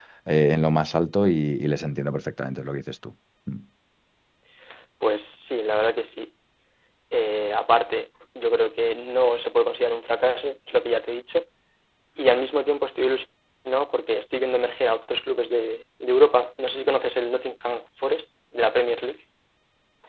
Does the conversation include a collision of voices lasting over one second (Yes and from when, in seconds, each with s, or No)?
No